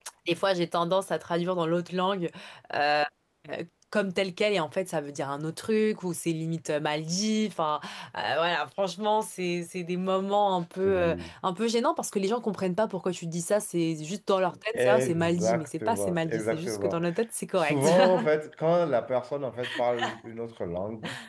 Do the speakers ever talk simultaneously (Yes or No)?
Yes